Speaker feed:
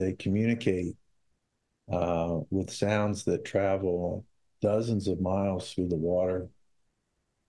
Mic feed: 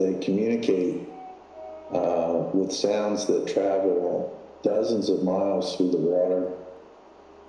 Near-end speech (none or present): none